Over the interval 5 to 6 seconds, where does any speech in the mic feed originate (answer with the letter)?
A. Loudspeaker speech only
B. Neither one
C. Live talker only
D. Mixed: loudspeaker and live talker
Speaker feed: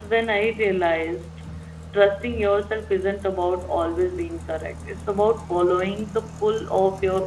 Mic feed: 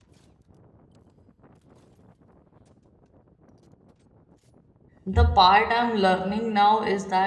C